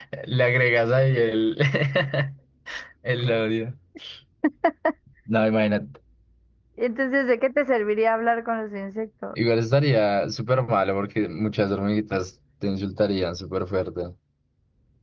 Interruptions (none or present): none